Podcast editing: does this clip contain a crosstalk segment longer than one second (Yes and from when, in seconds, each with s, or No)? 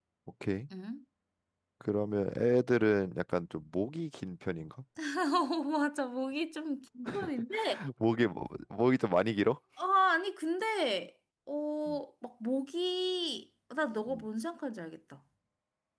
No